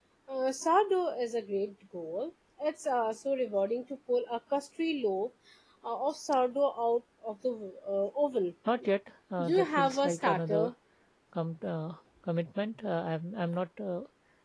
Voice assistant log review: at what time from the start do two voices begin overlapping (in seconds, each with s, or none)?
9.4 s